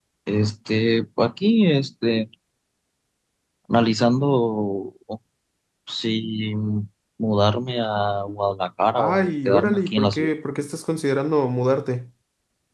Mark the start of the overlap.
9 s

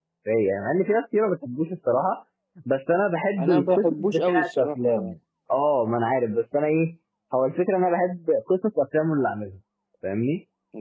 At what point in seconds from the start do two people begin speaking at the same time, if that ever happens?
3 s

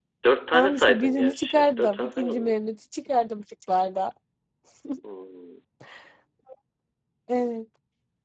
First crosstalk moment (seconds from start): 1 s

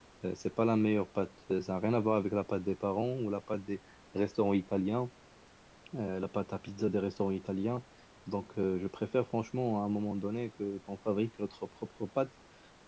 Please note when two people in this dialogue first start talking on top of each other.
none

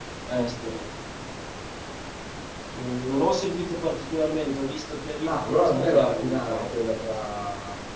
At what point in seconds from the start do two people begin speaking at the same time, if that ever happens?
5 s

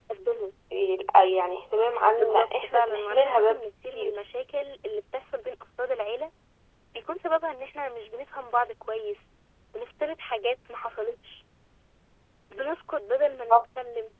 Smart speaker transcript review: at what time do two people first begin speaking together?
2 s

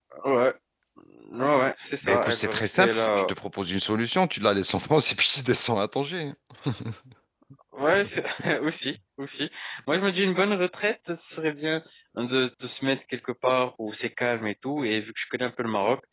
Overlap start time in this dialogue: 2 s

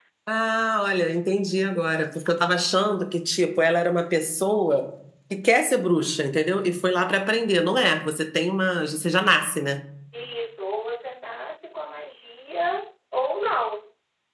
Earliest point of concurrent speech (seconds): none

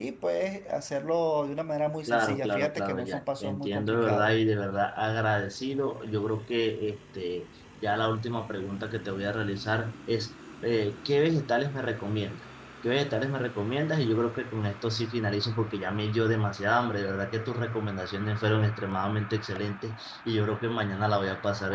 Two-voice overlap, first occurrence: 2 s

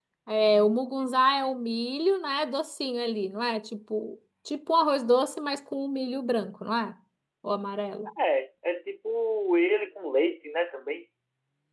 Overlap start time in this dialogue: none

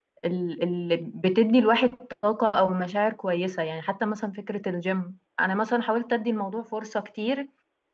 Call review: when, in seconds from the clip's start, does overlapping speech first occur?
none

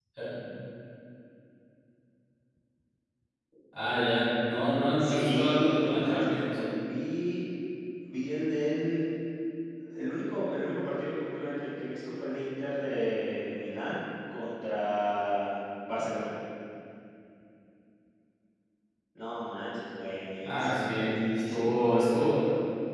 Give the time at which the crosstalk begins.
5 s

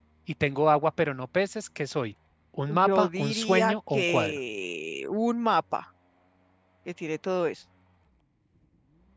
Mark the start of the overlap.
3 s

